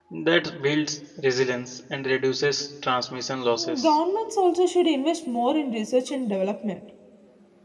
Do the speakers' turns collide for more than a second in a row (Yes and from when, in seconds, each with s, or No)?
No